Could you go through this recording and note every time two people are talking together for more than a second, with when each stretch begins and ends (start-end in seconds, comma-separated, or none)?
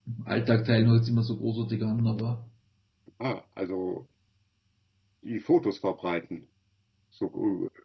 none